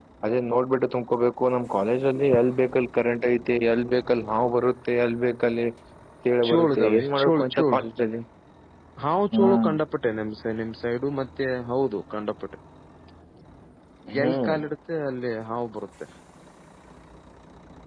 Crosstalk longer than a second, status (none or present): present